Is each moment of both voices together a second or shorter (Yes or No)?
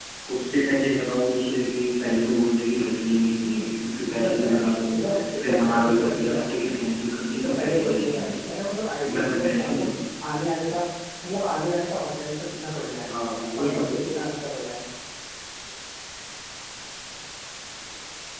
No